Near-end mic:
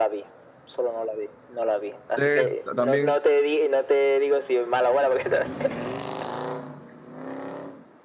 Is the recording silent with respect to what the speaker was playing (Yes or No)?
No